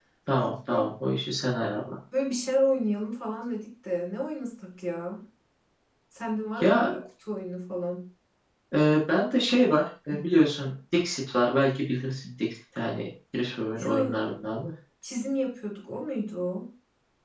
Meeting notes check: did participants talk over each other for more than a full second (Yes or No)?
No